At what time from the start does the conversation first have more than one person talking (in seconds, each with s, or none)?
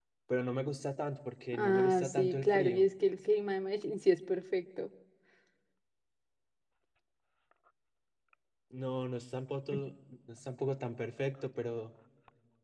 1.5 s